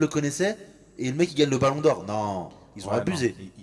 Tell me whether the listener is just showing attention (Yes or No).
No